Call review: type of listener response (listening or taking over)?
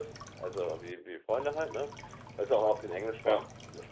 listening